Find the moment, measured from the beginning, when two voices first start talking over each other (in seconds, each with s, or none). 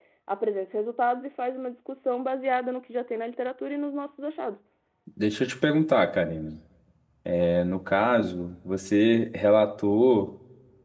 none